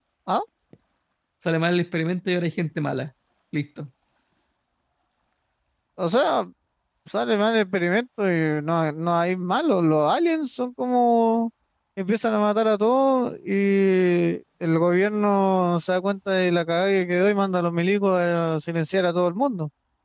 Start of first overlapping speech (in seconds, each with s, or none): none